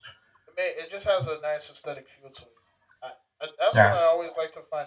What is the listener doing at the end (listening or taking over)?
listening